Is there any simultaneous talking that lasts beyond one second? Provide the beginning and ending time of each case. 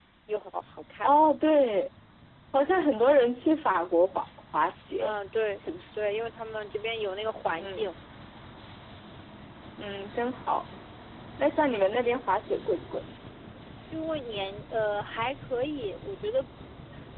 none

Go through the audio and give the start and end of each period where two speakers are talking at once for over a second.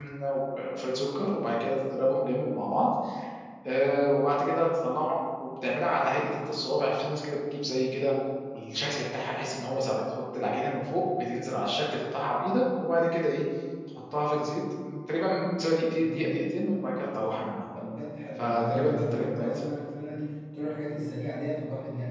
18.4-19.6

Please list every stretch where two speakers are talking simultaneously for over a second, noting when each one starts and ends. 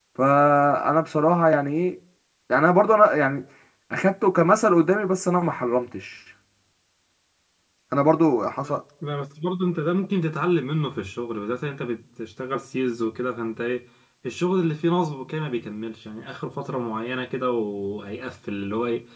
none

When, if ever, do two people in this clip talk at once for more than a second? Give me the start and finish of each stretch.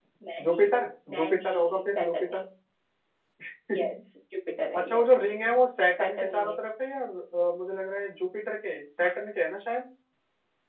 1.1-2.4

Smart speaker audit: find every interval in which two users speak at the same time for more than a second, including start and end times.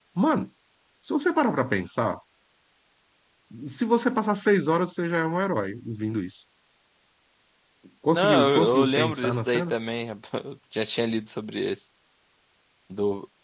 8.1-9.7

